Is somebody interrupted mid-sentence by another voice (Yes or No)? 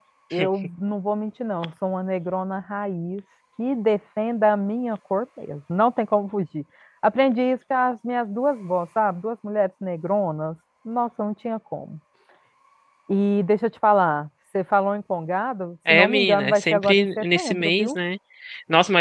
Yes